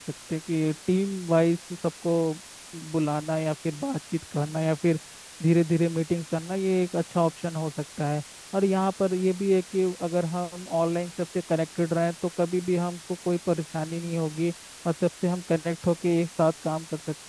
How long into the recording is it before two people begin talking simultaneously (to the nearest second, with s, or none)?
none